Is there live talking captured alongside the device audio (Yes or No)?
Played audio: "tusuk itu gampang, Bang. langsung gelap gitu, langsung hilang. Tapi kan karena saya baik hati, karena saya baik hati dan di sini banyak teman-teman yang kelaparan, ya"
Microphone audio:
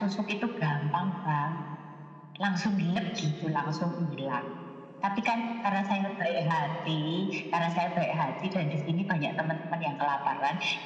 No